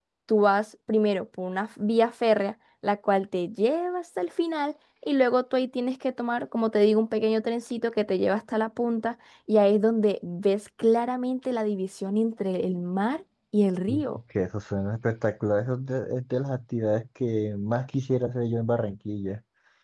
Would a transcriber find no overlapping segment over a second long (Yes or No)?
Yes